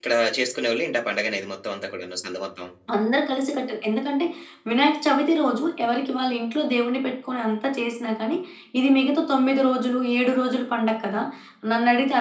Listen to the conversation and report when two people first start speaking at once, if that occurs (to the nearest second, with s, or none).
none